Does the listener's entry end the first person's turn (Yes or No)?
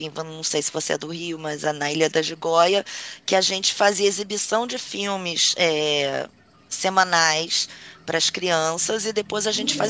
No